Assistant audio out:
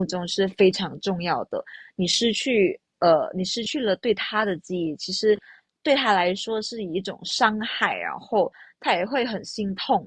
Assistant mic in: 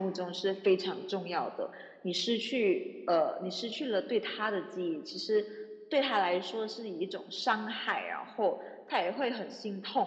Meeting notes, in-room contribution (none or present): none